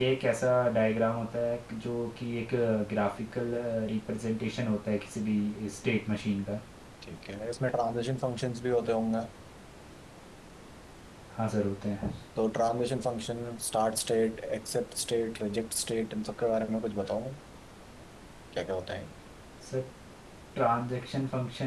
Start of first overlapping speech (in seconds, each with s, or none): none